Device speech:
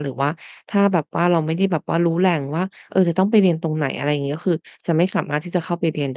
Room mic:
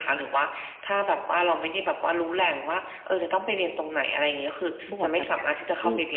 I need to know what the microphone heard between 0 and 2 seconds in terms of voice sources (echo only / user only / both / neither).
echo only